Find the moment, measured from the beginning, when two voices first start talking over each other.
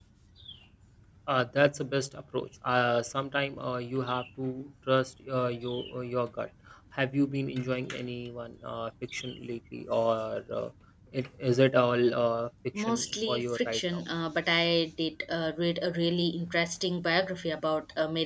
13 s

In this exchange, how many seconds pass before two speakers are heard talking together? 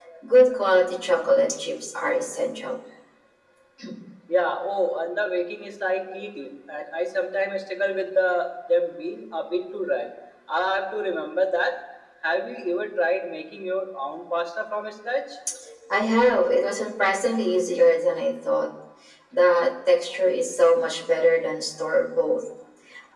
none

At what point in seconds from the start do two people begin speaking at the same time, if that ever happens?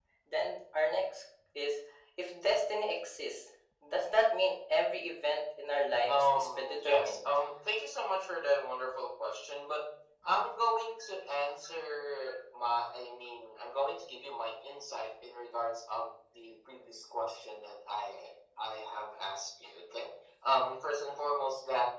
6 s

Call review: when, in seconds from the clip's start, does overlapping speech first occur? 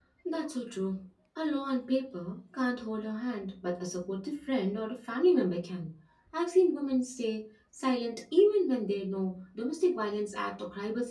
none

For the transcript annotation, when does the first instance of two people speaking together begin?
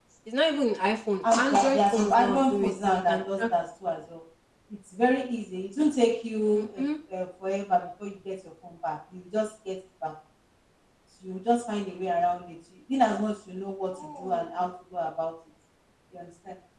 1 s

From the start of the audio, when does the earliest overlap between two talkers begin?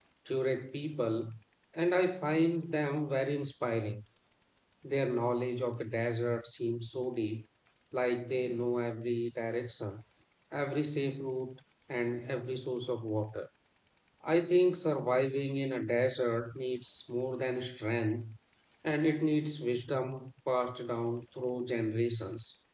none

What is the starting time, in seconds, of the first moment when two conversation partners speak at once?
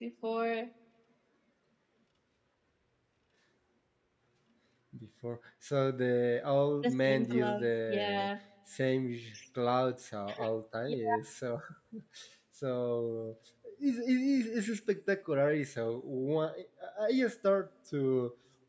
7 s

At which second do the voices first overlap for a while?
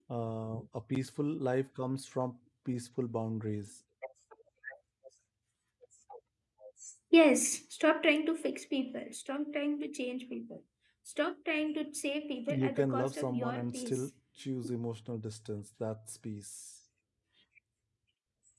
12 s

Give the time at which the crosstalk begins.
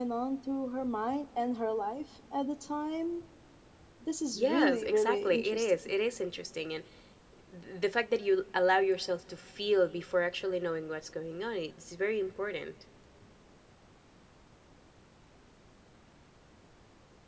4 s

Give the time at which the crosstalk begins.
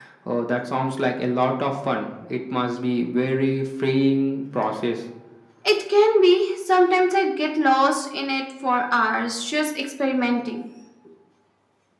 none

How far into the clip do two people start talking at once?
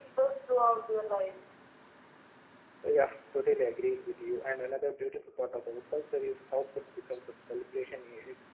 none

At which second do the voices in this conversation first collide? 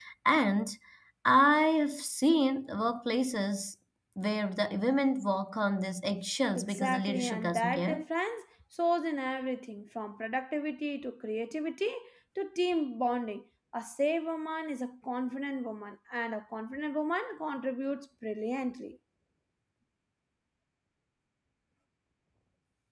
7 s

